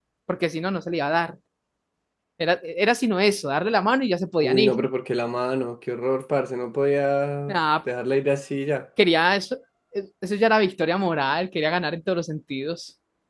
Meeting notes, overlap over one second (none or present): none